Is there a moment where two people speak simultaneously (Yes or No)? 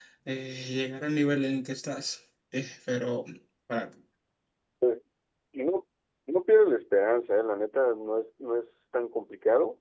No